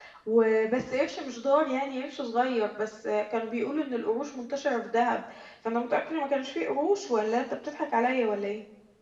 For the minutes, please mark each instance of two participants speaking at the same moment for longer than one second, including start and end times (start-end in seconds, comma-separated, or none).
none